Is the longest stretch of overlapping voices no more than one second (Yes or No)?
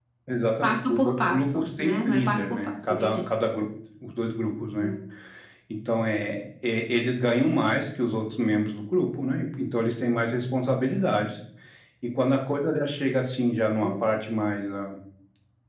No